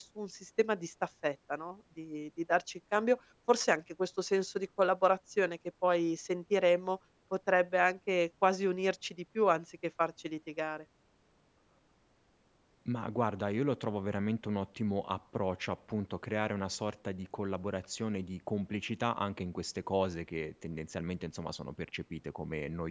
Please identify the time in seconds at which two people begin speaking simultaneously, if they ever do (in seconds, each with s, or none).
none